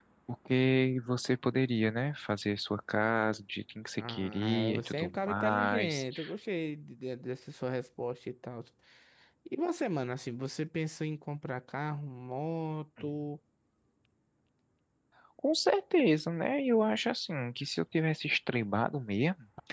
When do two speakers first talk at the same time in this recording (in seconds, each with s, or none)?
4.0 s